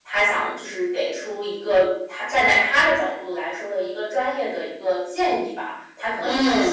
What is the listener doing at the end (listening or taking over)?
listening